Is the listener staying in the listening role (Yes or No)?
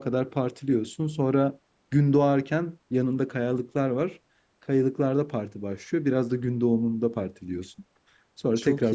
Yes